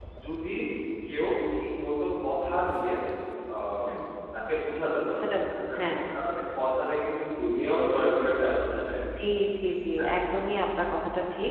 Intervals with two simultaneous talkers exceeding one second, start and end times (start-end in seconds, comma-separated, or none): none